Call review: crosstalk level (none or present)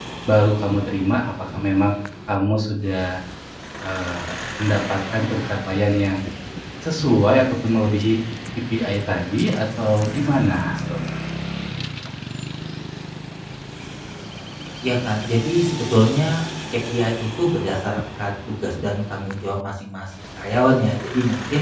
none